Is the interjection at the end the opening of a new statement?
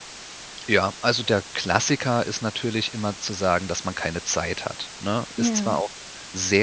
No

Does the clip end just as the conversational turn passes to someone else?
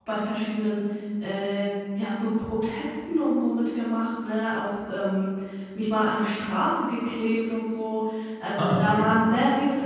No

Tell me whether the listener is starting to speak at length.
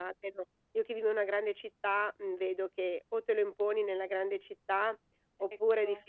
No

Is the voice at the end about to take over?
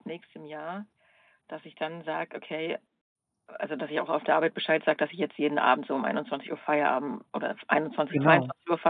No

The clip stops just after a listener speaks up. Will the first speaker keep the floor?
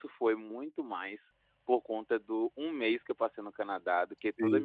Yes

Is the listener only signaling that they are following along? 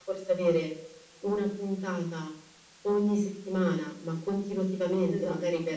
Yes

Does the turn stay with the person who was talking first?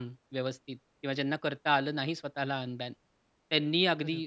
Yes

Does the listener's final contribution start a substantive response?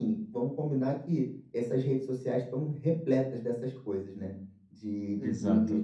No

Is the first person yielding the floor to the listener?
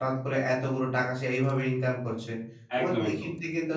No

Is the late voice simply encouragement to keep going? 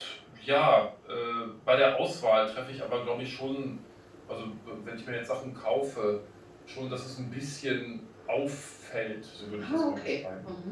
No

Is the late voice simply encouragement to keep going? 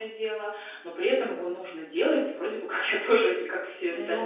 No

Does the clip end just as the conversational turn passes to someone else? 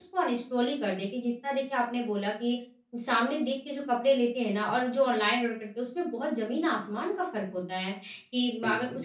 No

